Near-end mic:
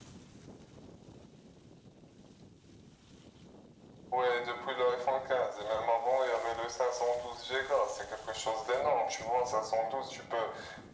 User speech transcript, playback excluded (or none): none